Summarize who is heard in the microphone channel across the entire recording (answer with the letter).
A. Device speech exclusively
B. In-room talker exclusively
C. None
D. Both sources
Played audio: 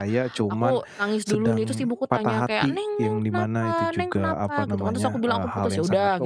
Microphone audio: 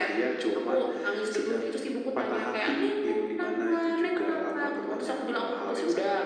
A